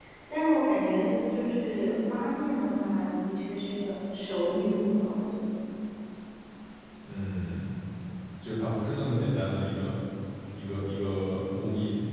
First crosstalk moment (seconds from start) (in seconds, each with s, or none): none